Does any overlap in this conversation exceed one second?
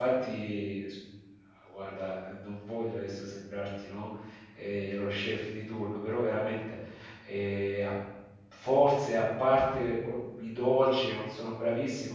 No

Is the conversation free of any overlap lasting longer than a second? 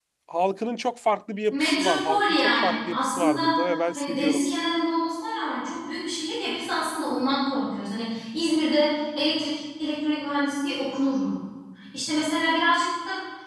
No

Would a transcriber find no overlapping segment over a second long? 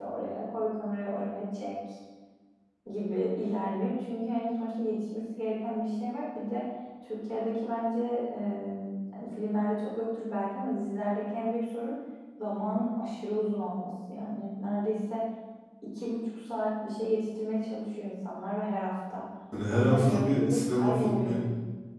No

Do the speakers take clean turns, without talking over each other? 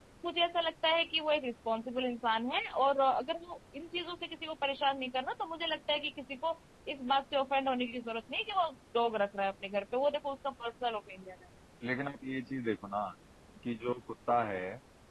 Yes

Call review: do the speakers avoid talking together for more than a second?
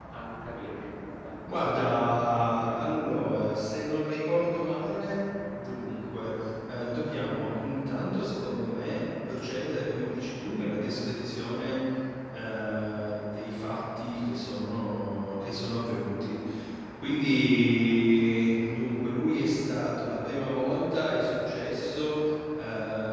Yes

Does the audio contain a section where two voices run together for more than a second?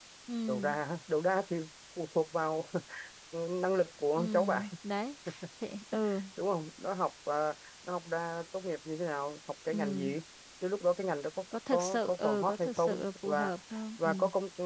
Yes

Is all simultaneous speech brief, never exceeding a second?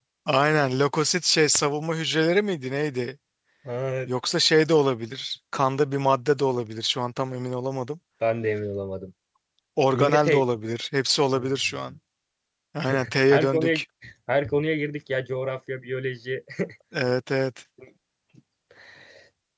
Yes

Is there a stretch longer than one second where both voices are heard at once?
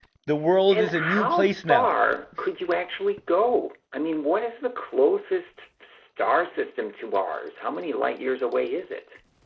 Yes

